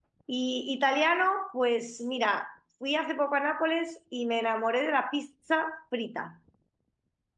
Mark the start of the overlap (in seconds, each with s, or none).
none